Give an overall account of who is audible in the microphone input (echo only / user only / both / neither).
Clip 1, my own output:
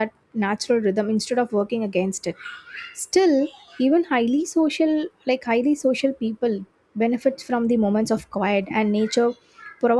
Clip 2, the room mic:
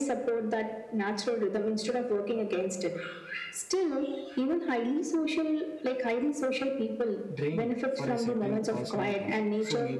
both